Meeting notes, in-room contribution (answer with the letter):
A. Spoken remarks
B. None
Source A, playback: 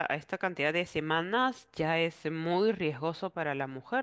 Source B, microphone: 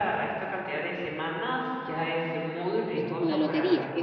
A